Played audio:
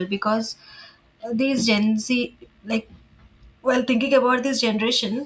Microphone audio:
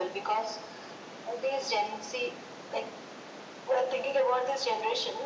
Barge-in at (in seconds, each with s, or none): none